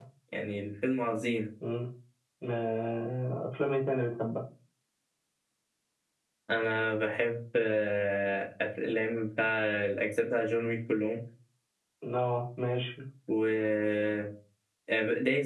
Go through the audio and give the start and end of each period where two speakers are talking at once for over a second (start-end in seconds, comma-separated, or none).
none